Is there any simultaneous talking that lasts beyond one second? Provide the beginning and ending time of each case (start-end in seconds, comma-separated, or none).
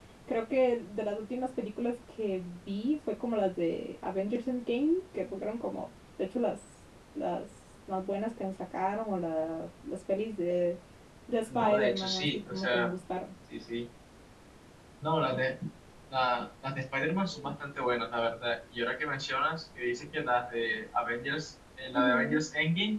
11.6-12.9